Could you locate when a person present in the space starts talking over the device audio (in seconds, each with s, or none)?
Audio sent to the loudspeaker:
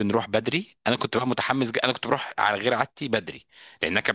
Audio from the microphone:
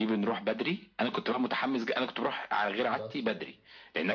2.9 s